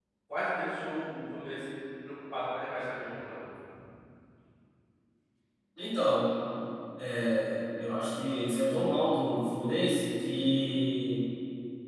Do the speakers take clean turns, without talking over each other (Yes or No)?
Yes